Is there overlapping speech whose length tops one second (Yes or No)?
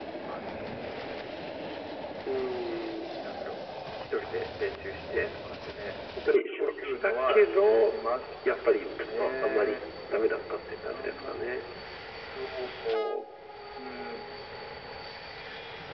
Yes